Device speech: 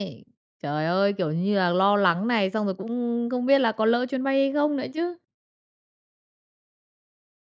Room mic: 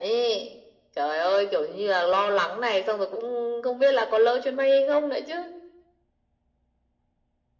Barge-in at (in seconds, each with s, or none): none